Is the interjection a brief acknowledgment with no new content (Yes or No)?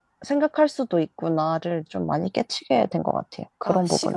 No